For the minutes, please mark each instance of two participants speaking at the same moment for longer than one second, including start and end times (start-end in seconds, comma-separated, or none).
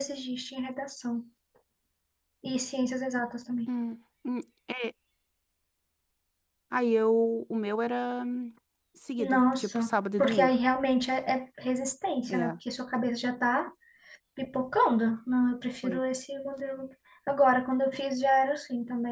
9.2-10.5